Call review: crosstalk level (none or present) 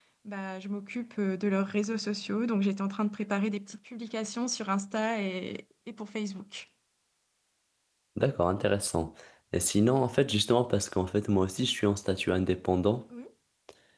none